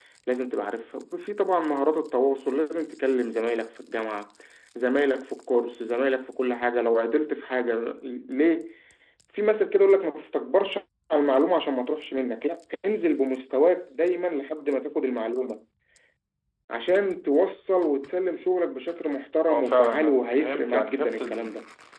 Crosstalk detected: Yes, from 19.5 s

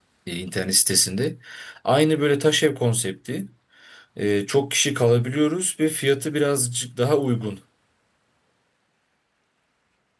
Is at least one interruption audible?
No

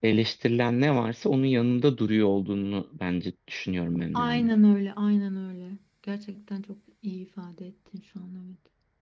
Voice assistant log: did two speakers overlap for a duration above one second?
No

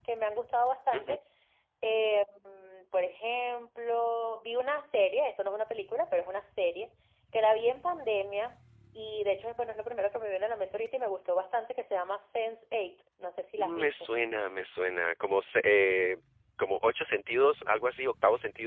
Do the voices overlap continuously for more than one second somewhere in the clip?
No

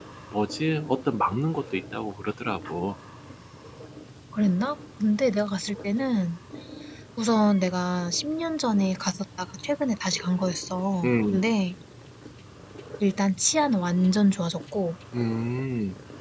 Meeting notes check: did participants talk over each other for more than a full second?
No

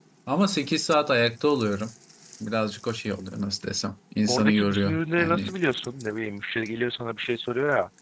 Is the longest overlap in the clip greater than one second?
Yes, from 4.3 s

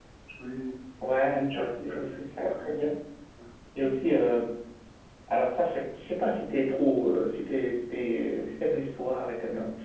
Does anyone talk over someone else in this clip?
Yes, from 1.3 s

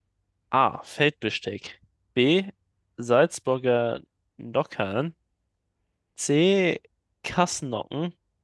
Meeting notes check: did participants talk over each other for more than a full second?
No

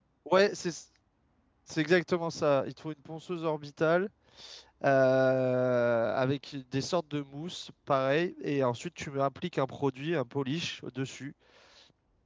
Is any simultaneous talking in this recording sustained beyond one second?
No

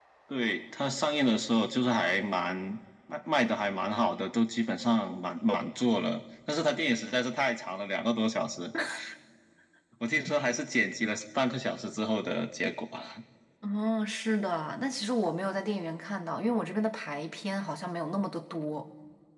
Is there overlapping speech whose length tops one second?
No

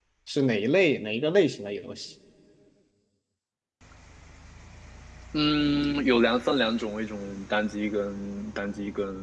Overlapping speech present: No

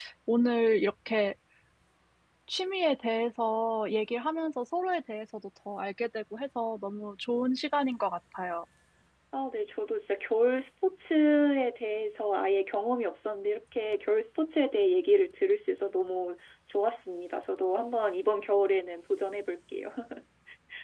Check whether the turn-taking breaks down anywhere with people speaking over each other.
No

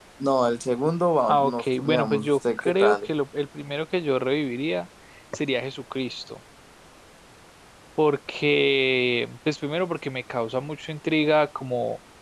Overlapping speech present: Yes, from 1.2 s

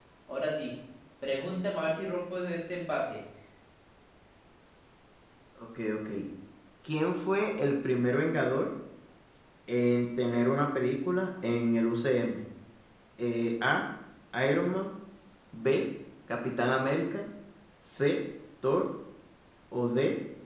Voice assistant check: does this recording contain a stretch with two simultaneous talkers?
No

